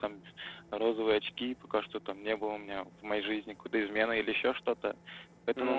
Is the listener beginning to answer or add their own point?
No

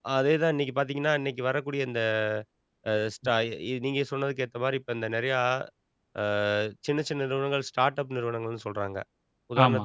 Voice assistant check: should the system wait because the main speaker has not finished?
Yes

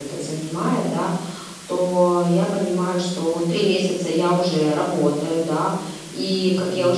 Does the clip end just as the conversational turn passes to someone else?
No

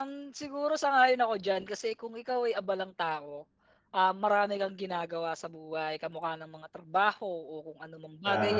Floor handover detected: No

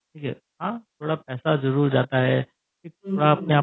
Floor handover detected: No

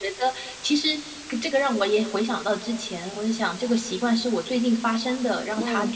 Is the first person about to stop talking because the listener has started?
No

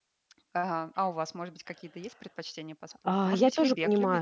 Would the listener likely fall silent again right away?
No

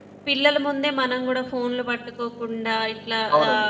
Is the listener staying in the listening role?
No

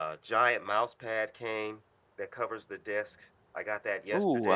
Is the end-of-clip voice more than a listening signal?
Yes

